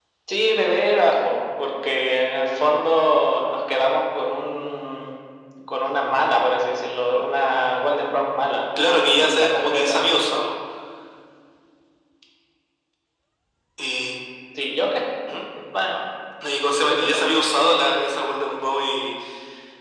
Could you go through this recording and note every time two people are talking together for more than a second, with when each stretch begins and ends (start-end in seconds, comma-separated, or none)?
8.8-10.0